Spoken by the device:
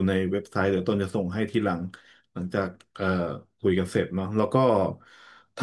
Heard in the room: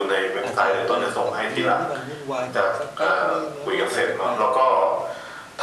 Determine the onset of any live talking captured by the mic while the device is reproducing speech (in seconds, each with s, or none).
0.4 s